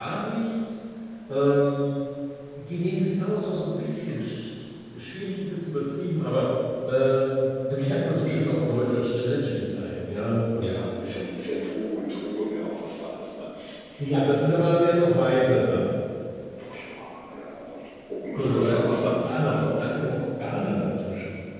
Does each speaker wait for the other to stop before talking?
No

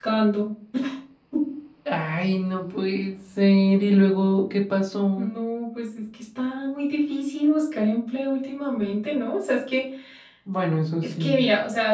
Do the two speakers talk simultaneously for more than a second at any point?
No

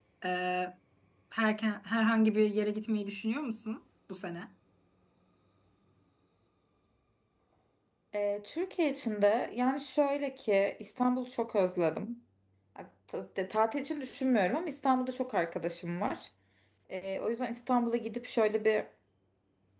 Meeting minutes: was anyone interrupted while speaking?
No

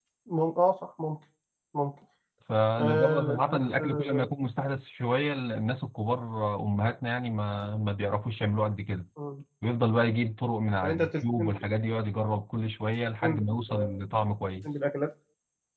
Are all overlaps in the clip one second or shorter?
No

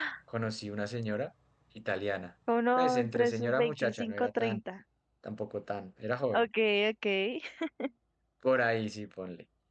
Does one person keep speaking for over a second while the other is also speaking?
Yes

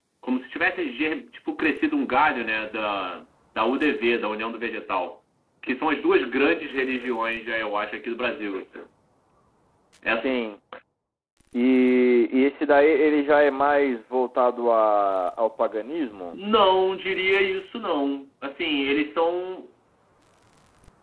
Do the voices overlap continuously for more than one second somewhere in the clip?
No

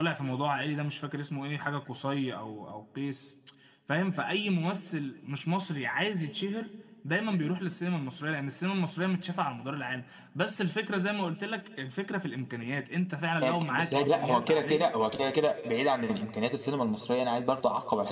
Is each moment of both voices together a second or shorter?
No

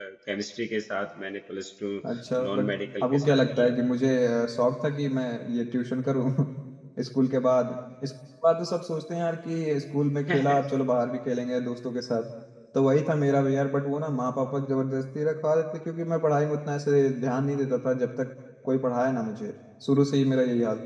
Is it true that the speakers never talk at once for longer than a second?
No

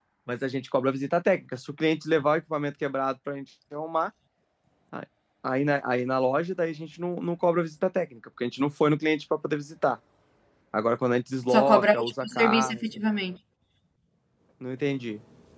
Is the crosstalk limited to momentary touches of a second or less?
No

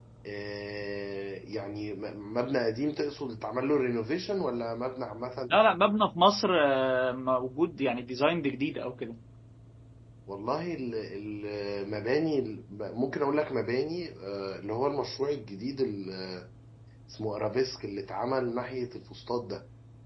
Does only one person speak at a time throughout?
Yes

